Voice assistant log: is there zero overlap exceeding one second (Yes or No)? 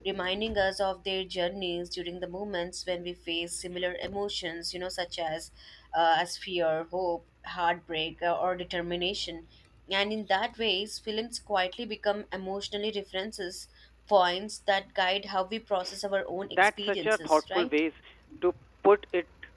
No